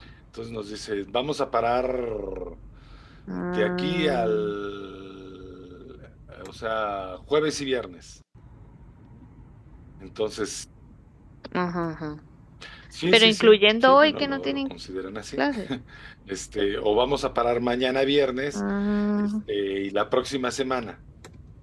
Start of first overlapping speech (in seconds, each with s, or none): 3.3 s